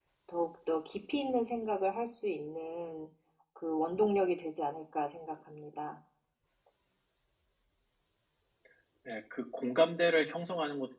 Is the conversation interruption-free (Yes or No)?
Yes